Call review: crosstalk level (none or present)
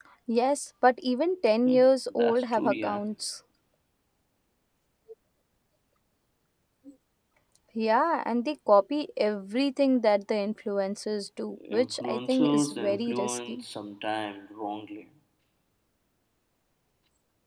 present